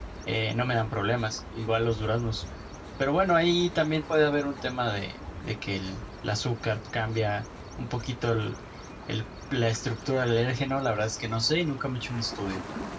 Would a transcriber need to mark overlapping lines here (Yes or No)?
No